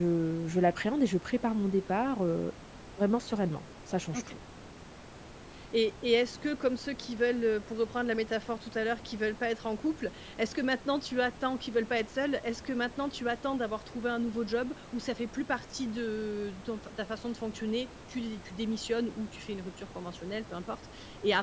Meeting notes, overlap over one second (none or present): none